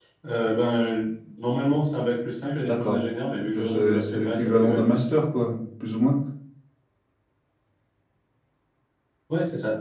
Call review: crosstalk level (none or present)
present